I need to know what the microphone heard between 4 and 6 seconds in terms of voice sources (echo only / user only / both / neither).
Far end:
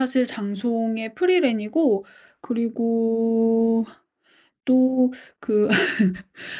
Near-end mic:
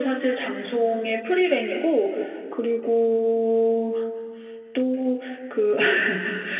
echo only